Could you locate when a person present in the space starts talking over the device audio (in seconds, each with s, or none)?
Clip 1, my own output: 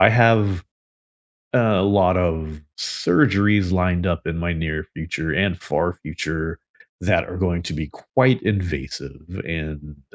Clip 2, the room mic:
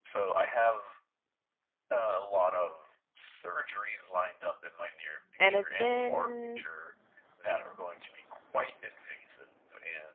5.4 s